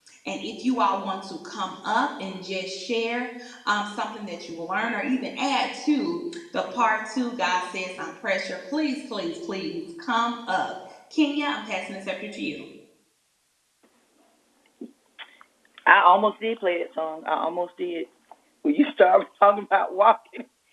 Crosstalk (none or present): none